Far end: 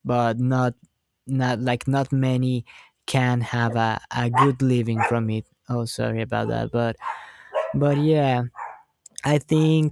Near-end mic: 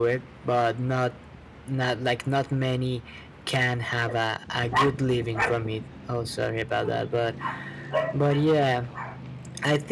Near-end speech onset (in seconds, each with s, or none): none